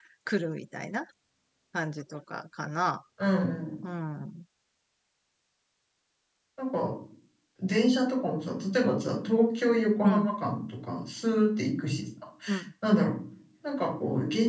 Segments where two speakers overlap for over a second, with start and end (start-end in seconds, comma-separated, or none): none